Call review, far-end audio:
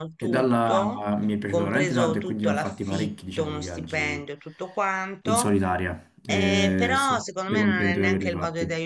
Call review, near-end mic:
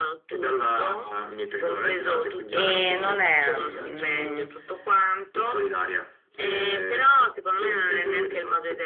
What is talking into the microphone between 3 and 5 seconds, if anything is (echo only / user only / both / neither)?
both